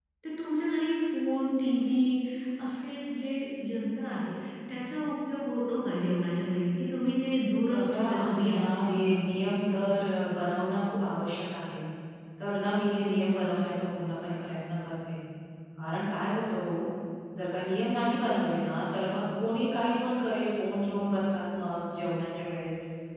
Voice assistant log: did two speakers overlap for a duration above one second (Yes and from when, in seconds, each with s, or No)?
Yes, from 7.6 s